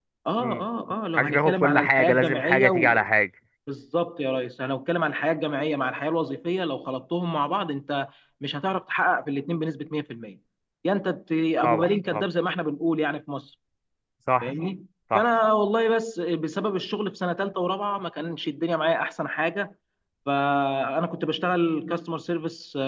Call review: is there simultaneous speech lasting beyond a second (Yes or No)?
Yes